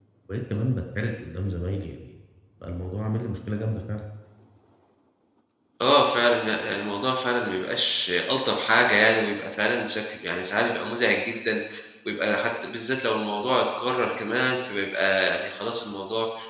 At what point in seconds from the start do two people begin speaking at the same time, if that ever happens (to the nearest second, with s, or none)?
none